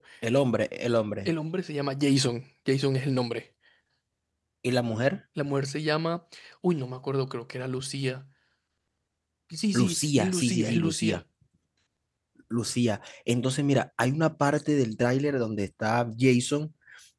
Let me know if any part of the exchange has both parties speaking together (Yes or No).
Yes